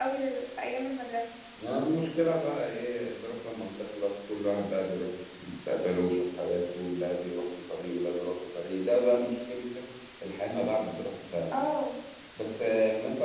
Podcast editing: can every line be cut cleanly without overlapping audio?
Yes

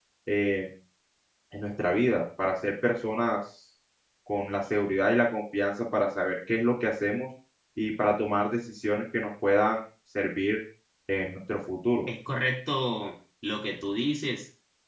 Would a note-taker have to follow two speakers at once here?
No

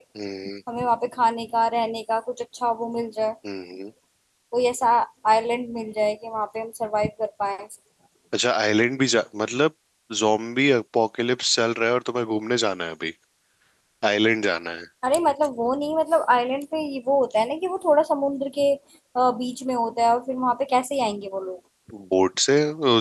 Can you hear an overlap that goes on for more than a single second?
No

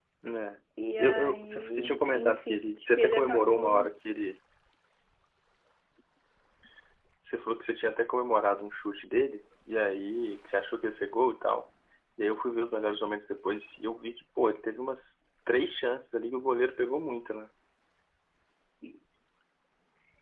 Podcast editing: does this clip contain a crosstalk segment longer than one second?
Yes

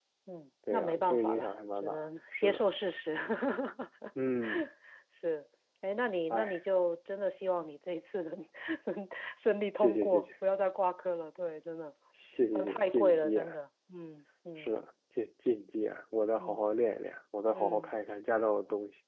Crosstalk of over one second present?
Yes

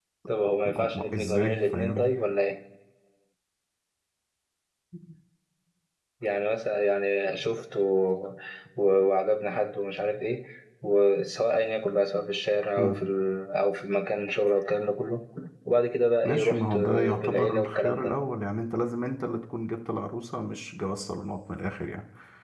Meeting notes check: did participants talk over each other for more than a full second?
Yes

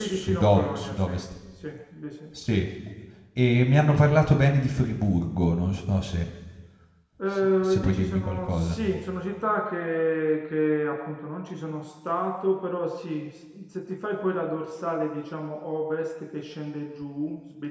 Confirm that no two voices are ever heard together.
No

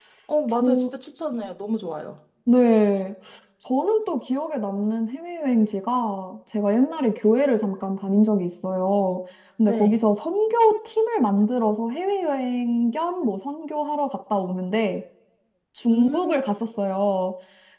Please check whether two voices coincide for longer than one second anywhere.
No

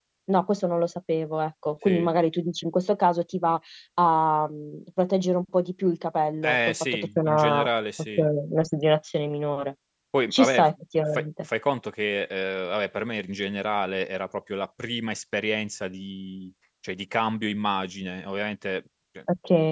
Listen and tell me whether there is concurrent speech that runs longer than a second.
Yes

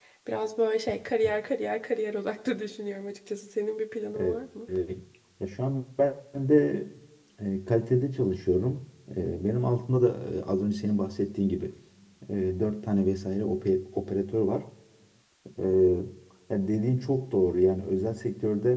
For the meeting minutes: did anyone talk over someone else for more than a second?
No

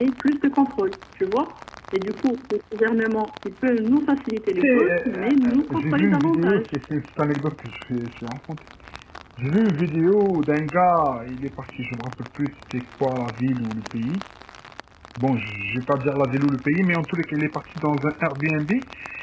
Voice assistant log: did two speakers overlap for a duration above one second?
Yes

